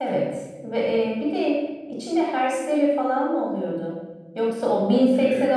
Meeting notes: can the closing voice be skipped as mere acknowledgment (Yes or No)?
Yes